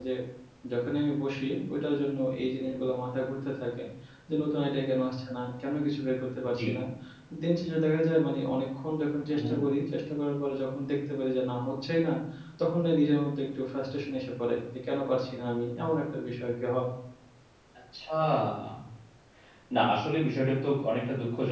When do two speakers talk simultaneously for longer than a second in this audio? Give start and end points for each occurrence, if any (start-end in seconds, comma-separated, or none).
none